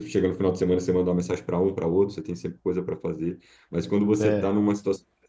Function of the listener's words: listening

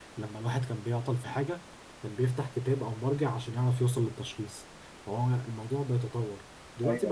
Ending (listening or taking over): listening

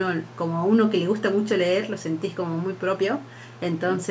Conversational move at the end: listening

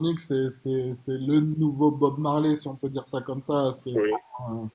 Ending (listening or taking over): listening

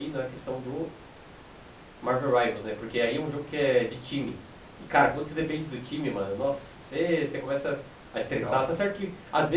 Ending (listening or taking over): listening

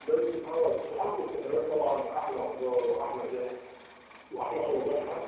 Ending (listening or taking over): listening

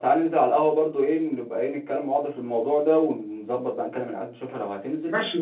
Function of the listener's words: taking over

